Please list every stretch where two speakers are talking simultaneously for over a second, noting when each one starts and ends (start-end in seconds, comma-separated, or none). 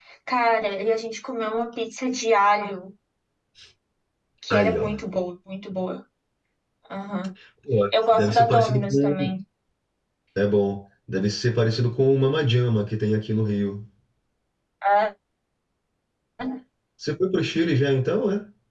7.9-9.3